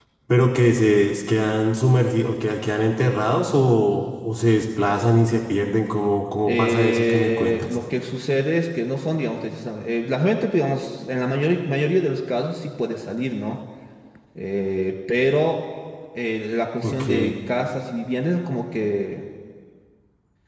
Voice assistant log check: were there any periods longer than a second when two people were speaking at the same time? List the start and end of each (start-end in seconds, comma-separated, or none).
6.5-7.8